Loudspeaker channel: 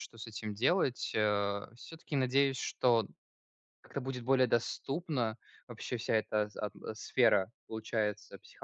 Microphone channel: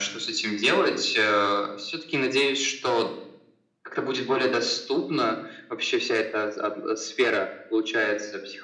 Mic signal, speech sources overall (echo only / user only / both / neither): echo only